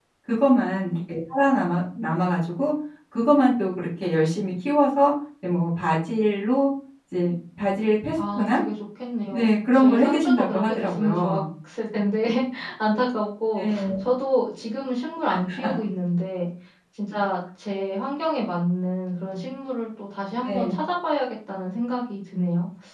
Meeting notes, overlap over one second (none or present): present